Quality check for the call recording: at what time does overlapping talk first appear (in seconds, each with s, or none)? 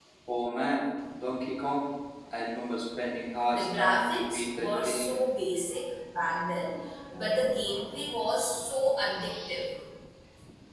3.5 s